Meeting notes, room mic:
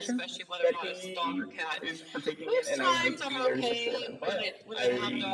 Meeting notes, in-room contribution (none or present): none